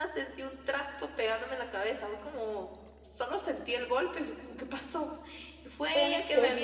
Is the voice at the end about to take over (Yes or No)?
No